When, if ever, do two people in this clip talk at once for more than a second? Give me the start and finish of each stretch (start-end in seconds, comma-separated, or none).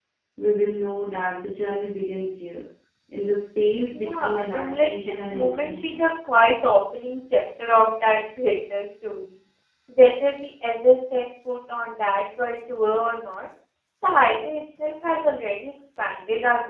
4.0-6.0